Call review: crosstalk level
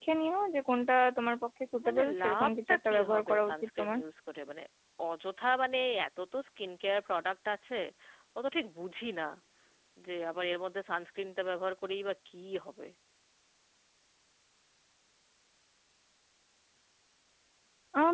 present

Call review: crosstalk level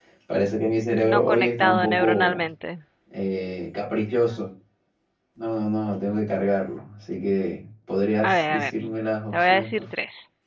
present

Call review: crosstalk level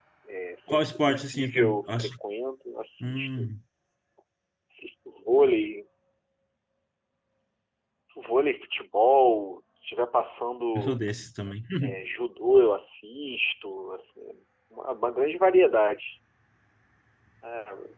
present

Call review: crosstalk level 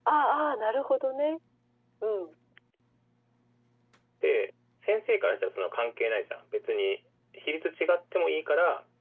none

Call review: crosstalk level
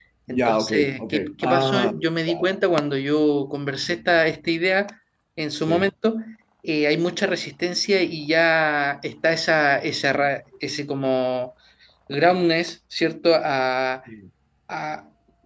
present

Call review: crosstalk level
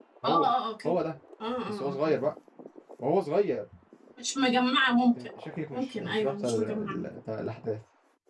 present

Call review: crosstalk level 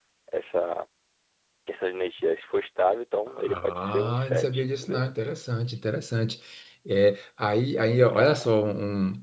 present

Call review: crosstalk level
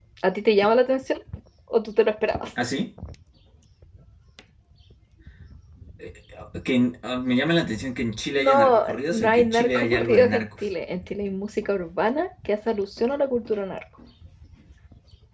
present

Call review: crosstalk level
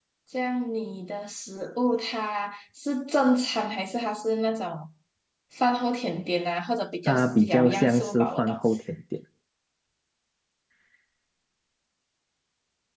present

